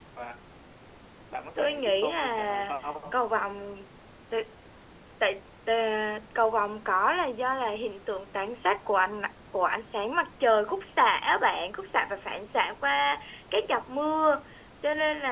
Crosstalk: present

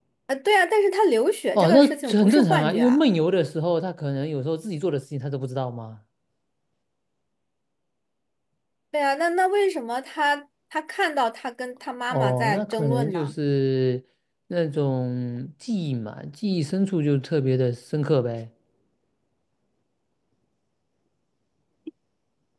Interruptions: present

